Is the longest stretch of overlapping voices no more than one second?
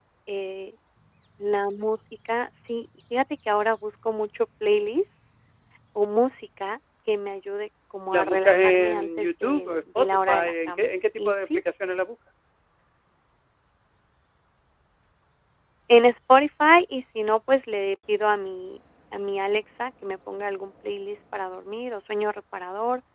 No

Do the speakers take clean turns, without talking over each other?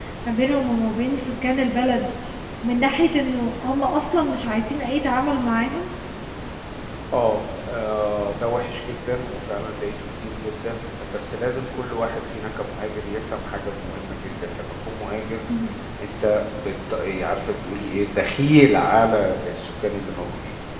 Yes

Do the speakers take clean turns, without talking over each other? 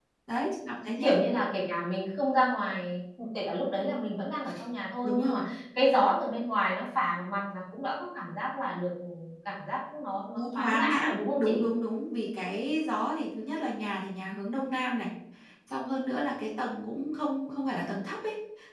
No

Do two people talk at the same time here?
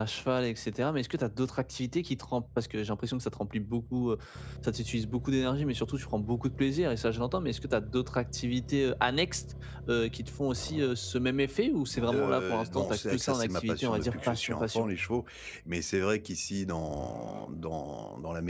Yes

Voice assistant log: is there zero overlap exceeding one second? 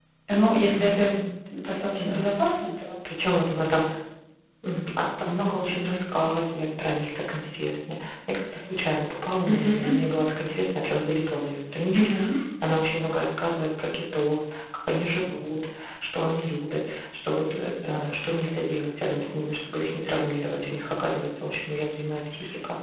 Yes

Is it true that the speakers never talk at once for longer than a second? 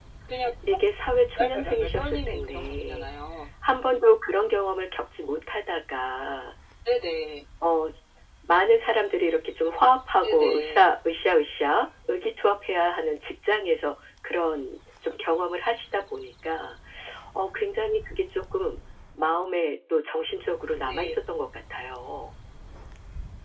No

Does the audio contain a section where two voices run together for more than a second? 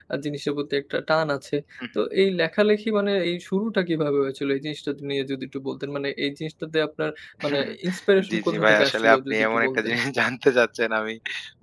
Yes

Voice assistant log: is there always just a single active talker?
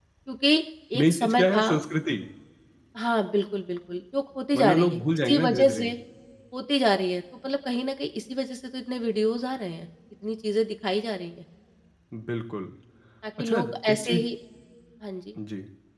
No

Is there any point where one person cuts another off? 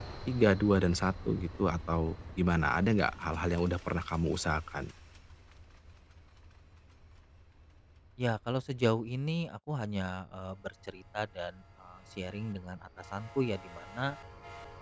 No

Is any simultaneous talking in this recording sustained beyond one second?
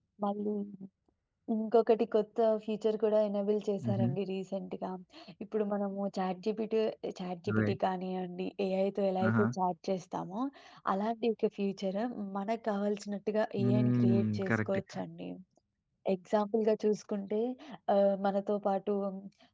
Yes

